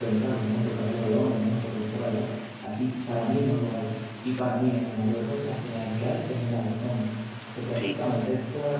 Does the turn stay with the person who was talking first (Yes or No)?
Yes